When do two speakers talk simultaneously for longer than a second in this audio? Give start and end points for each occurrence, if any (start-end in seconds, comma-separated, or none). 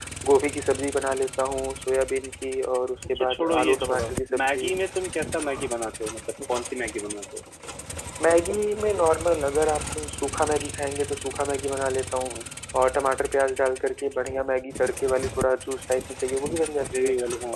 3.1-4.7